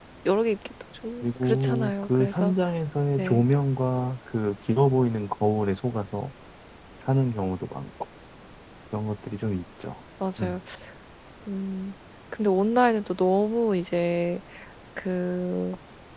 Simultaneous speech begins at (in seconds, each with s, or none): 1.2 s